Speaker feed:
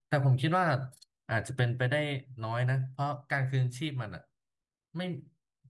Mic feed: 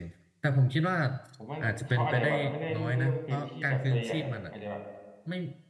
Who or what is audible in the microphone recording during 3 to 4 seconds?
both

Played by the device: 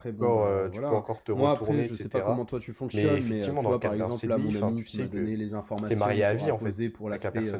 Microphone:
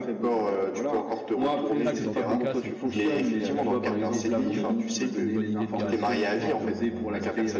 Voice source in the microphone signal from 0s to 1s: echo only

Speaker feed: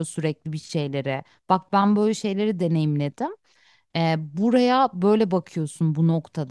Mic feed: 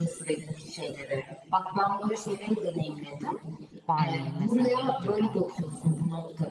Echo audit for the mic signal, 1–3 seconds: echo only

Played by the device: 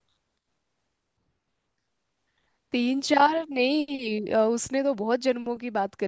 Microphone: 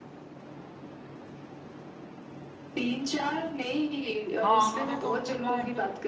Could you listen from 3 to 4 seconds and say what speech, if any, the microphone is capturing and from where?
echo only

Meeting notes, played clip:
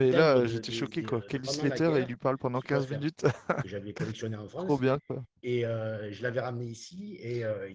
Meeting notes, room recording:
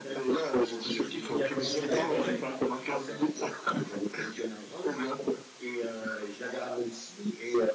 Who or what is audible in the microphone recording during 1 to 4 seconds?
both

